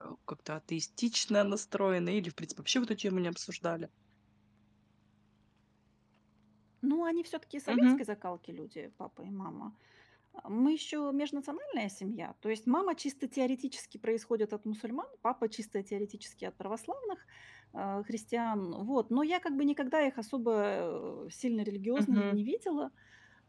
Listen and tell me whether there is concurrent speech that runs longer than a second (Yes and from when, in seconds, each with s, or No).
No